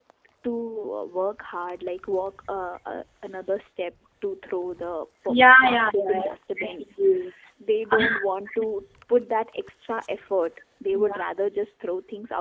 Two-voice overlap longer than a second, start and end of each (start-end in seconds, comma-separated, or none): 5.3-6.8